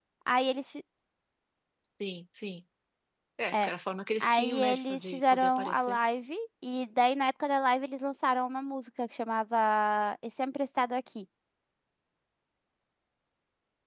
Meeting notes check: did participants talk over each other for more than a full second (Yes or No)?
Yes